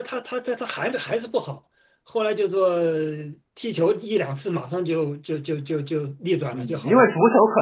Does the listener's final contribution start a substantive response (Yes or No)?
Yes